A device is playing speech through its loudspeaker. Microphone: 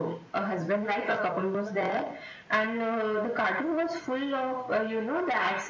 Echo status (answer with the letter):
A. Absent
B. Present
B